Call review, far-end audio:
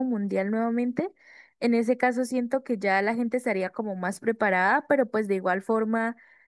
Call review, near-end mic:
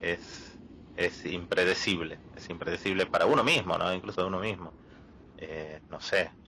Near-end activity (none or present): present